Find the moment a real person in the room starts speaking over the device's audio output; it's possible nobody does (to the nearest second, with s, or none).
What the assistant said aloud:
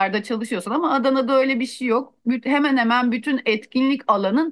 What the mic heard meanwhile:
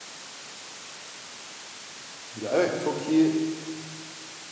2 s